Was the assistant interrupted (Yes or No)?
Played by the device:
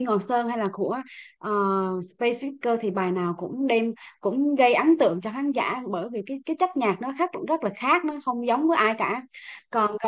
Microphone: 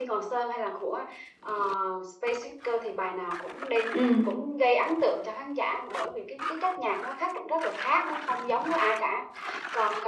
Yes